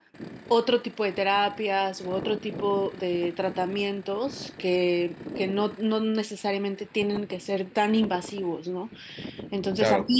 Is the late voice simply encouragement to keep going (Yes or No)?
Yes